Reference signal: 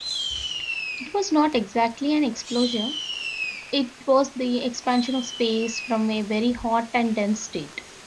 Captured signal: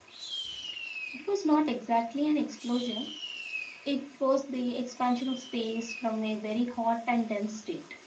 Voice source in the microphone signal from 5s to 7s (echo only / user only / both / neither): echo only